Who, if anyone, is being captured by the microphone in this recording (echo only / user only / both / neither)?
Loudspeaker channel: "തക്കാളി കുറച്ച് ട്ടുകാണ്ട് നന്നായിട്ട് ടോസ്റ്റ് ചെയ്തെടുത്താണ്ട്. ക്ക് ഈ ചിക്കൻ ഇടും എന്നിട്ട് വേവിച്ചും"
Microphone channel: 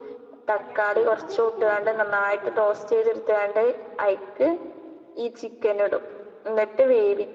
both